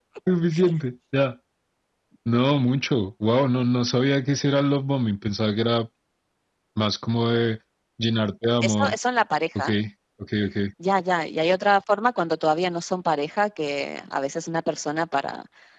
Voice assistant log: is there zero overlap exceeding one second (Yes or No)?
Yes